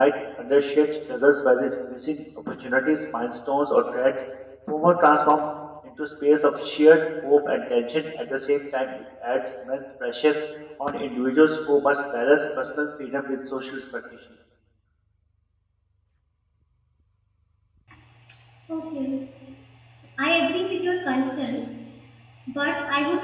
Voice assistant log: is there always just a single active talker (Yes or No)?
Yes